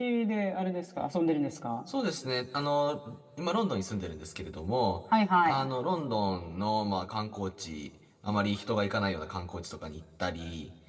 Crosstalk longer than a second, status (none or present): none